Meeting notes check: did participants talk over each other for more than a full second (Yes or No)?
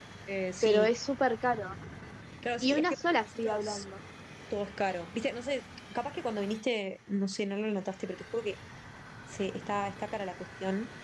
Yes